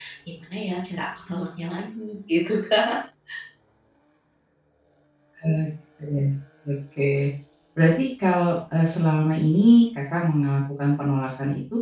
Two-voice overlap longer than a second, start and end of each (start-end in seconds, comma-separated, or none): none